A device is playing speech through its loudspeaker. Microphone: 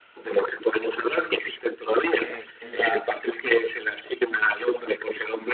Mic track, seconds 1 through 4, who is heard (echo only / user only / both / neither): both